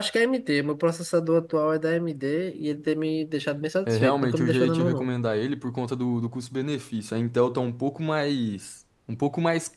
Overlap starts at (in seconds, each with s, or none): 3.9 s